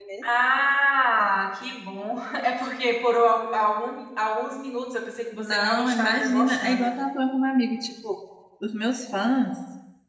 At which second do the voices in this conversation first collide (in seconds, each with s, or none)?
5.4 s